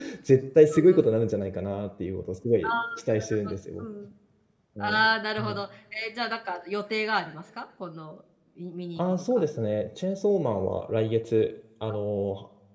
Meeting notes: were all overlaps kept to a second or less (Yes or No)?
Yes